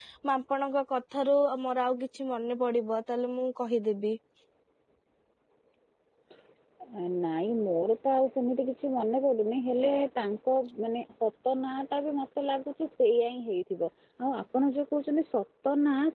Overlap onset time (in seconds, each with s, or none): none